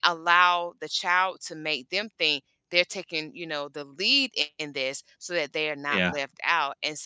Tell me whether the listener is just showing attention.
Yes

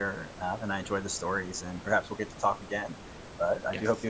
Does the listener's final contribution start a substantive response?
Yes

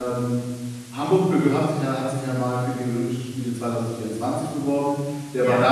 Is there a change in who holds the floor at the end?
No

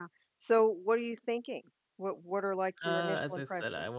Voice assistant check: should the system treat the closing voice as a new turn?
Yes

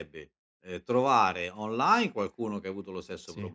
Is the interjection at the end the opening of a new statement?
No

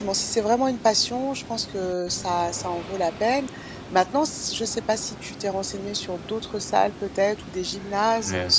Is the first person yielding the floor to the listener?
No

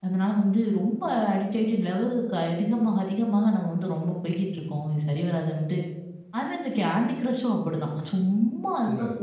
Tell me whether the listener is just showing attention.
No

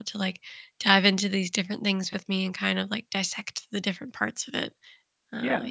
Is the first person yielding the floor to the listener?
Yes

